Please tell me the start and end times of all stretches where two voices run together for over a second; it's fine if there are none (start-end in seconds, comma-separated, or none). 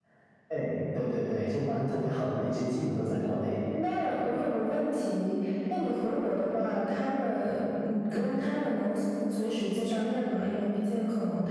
none